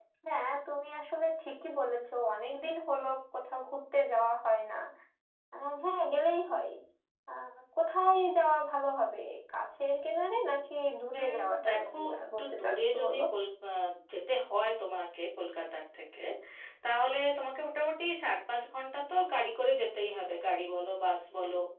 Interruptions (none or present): present